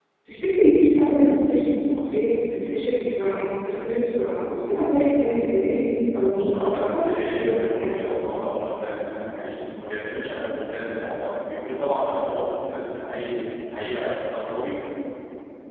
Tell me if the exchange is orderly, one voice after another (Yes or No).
No